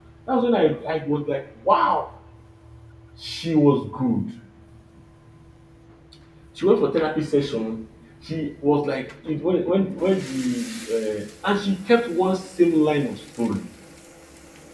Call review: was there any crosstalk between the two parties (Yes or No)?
No